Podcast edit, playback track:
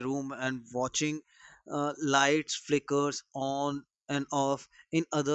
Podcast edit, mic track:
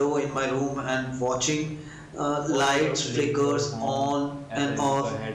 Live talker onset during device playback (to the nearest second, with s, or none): 2 s